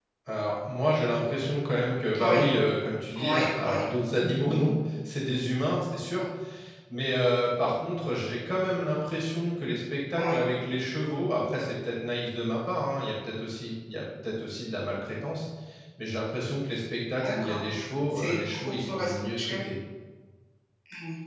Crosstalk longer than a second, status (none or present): present